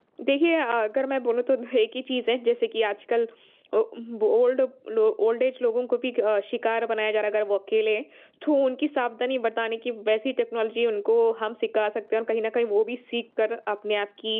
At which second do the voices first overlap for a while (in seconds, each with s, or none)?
none